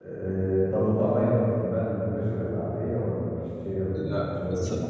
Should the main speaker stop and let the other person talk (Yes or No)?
Yes